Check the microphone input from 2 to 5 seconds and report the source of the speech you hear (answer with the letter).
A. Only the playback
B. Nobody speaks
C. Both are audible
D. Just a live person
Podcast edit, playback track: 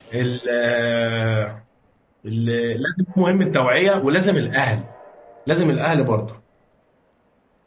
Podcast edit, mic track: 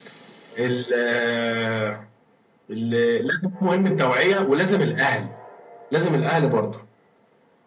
A